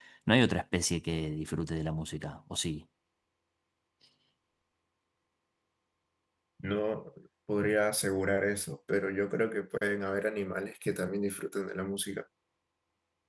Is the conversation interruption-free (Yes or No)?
Yes